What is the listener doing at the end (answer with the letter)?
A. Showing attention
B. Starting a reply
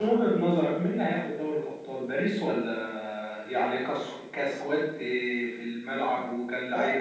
B